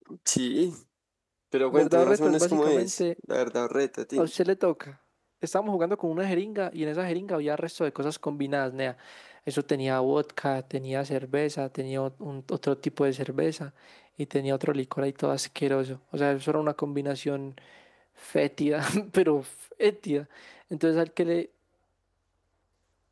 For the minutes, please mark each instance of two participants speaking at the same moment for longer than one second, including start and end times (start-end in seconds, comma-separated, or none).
1.7-3.0